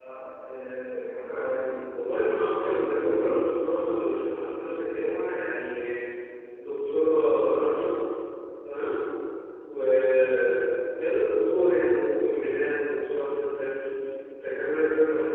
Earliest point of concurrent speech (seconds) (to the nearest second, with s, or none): 2 s